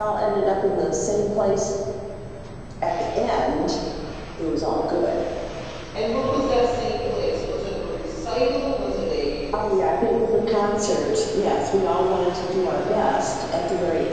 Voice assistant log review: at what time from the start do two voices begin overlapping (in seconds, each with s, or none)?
none